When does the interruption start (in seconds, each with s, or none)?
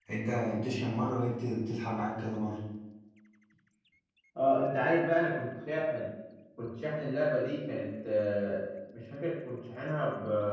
none